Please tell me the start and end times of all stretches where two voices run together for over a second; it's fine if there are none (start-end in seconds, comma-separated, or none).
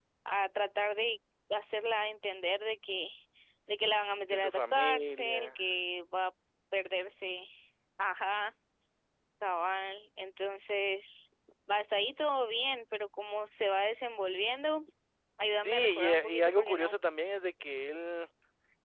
4.3-5.6, 15.6-17.0